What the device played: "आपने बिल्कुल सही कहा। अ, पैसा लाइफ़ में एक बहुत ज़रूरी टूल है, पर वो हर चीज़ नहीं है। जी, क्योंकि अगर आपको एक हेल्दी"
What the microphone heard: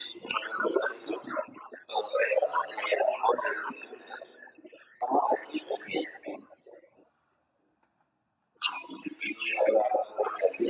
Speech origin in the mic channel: echo only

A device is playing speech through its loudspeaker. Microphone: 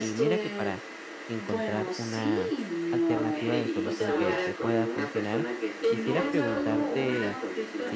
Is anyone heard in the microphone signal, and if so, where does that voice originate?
both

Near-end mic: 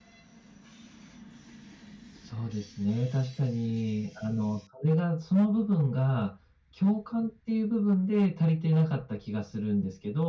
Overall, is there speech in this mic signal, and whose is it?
user only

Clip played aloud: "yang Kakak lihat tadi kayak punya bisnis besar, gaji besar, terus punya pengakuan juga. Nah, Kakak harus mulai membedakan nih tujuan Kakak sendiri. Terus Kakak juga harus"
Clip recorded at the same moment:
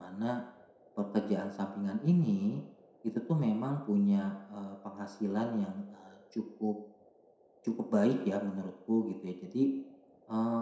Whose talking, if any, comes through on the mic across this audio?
user only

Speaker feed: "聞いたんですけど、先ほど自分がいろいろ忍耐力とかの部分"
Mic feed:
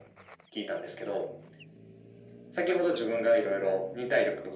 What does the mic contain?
echo only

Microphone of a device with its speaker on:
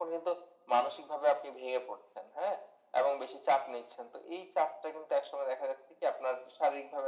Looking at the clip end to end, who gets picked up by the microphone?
echo only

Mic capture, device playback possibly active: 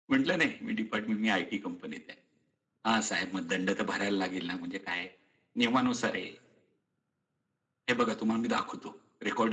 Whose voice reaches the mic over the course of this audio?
echo only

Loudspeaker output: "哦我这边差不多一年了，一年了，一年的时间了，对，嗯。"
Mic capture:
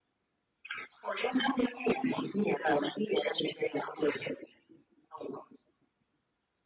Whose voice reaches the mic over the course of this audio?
echo only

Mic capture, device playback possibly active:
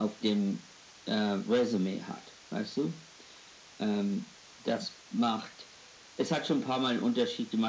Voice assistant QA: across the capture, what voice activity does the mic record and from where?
echo only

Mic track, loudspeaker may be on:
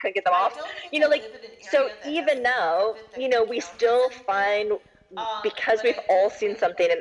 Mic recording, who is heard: both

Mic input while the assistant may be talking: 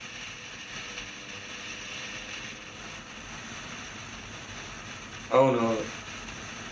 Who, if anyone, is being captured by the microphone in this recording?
user only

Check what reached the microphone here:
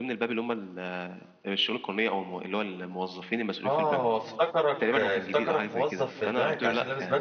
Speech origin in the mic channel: both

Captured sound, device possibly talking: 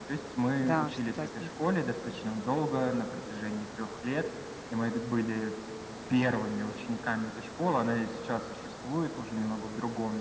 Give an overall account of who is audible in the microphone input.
both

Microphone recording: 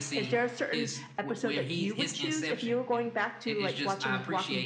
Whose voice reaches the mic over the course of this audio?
echo only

